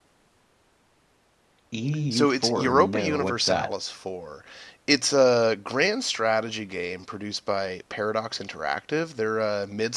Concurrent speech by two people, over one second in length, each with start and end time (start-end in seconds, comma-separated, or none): 2.1-3.7